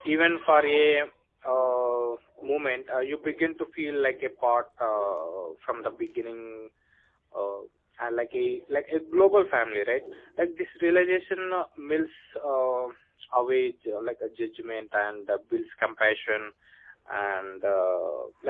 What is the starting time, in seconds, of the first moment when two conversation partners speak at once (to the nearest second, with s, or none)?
none